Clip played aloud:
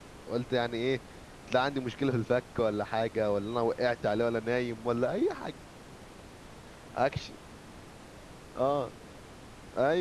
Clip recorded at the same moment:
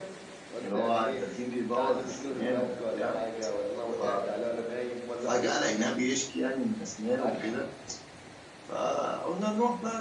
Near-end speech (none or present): present